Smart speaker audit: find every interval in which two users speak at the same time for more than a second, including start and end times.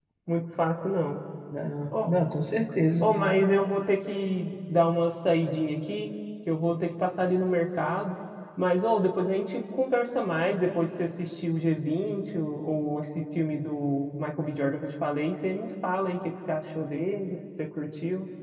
none

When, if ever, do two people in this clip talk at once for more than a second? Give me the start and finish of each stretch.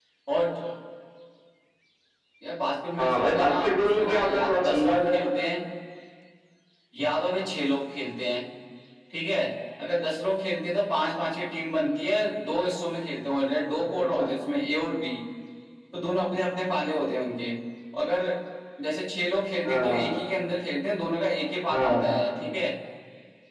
3.0-5.2

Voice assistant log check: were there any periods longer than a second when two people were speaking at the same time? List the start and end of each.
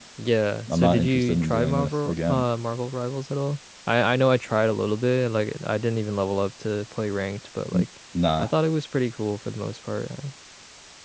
0.7-2.4

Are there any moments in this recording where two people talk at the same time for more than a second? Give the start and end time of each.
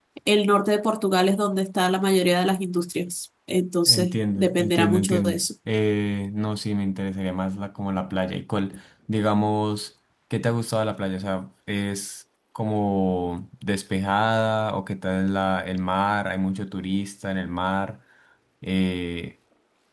3.9-5.5

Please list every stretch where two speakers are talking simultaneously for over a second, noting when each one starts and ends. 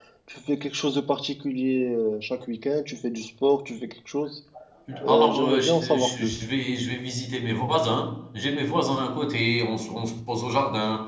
5.1-6.4

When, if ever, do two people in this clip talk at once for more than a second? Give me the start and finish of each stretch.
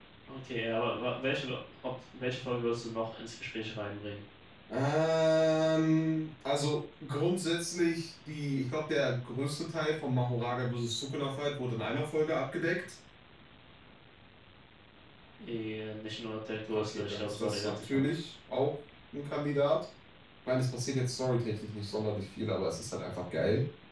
16.7-18.1

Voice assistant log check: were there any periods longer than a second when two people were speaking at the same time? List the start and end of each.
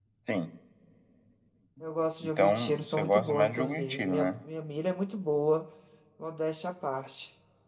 2.2-4.3

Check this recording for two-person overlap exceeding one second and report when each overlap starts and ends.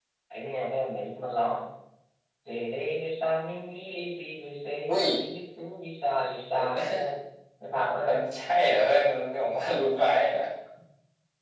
none

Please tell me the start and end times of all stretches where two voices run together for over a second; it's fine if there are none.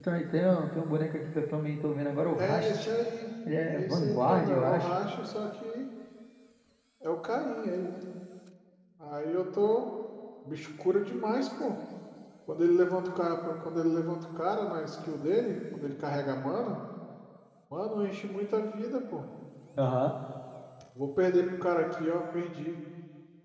3.7-4.9

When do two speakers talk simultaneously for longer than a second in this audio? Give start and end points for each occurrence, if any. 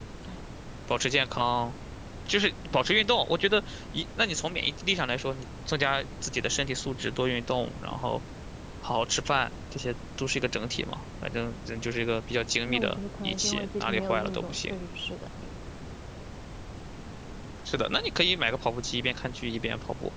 12.7-14.7

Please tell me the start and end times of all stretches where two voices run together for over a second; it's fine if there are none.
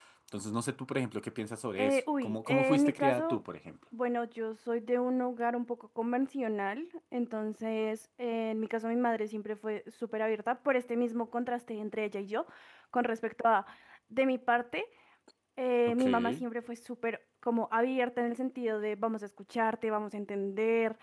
1.8-3.4

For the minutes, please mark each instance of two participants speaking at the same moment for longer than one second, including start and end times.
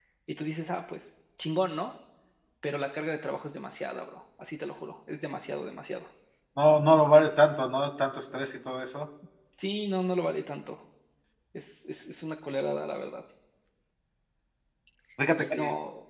none

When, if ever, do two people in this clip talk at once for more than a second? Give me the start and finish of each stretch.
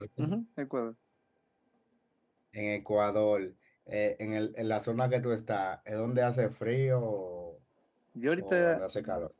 none

